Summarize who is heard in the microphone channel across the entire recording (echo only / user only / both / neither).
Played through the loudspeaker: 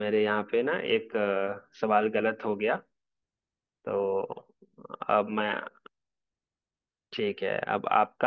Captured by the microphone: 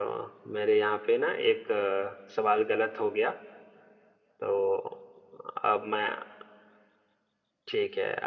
echo only